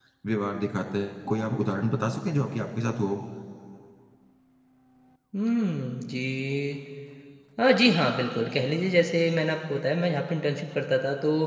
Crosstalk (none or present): none